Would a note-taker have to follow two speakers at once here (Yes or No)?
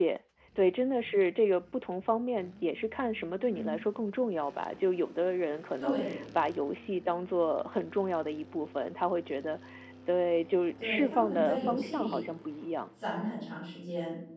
Yes